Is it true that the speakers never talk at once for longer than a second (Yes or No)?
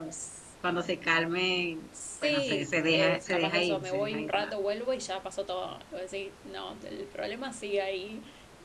No